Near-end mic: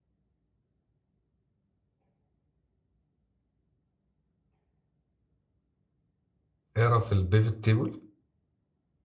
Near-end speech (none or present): present